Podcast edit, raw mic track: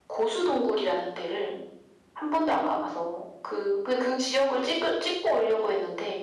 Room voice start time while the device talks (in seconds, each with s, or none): none